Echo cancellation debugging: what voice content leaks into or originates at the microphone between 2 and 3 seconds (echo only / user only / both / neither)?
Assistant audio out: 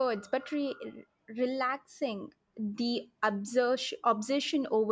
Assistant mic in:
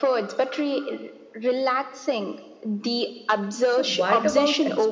echo only